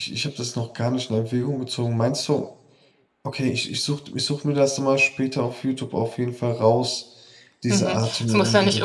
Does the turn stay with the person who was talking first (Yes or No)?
No